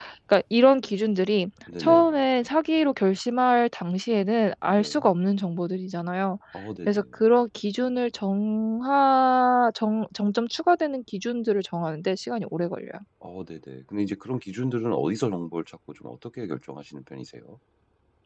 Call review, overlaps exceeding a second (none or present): none